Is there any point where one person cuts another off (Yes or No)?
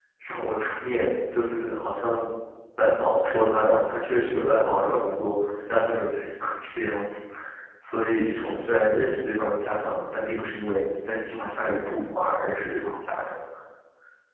No